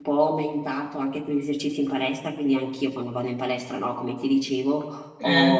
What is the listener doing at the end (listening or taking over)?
listening